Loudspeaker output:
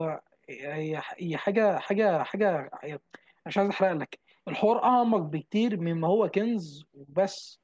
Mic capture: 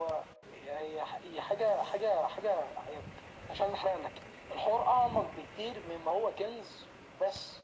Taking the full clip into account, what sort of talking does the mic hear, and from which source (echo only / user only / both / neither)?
echo only